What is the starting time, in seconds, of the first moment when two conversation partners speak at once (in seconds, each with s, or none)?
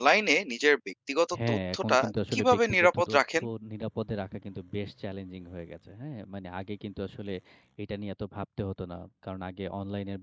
1.3 s